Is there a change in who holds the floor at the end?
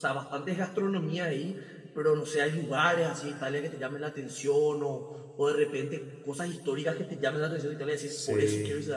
Yes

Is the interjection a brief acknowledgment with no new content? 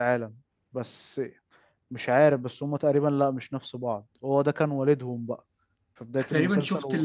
No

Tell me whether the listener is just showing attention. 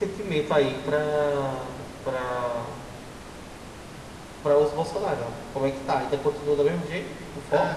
No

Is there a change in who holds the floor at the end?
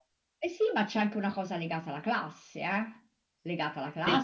Yes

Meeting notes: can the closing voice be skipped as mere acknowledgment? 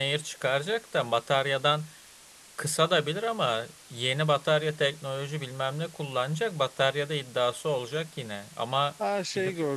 No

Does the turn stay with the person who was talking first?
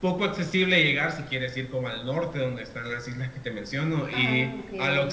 Yes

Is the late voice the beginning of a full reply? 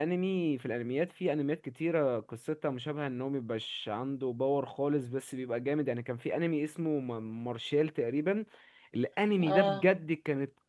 No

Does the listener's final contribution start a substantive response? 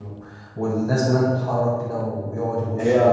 No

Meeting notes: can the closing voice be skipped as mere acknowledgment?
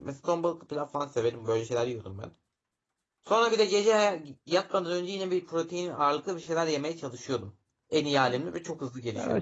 No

